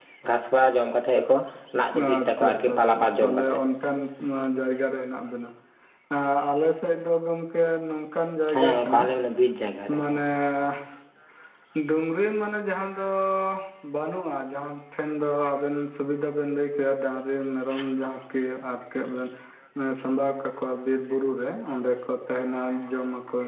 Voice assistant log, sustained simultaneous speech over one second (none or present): present